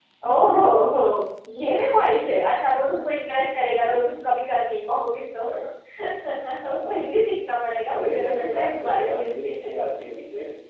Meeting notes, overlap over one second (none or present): present